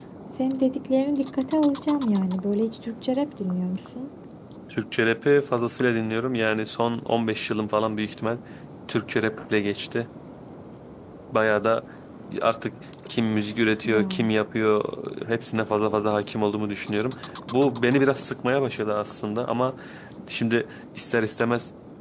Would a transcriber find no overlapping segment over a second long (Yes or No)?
Yes